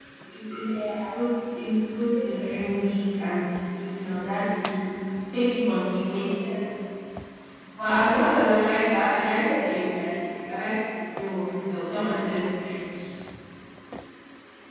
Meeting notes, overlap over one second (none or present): none